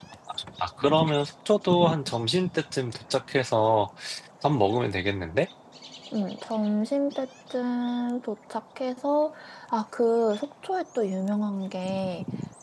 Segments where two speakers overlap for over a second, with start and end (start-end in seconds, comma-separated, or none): none